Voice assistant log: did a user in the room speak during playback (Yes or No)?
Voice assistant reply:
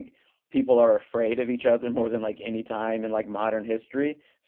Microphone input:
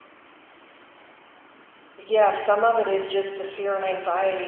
Yes